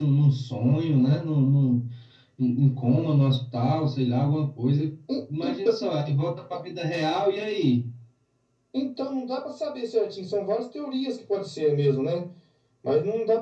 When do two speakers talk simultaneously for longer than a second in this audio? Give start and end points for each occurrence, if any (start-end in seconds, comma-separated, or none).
none